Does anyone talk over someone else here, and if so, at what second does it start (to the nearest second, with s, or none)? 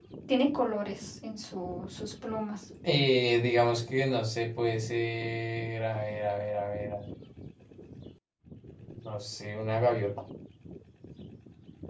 none